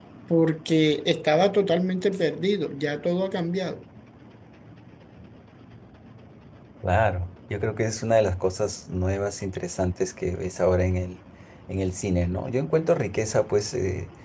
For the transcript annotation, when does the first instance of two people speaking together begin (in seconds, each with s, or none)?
none